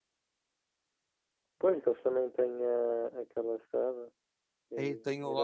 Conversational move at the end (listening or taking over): taking over